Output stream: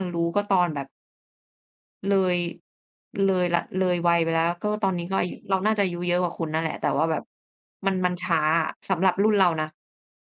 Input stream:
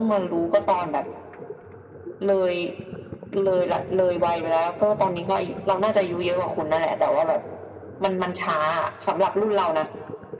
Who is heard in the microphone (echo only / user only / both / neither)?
echo only